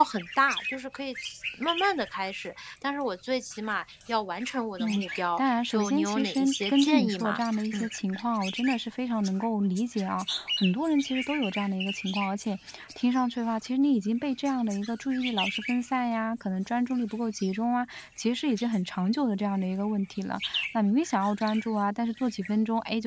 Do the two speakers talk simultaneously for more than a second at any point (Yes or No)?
Yes